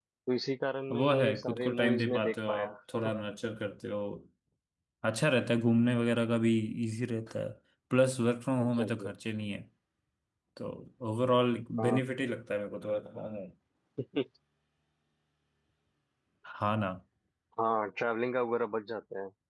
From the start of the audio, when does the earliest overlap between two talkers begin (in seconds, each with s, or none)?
0.9 s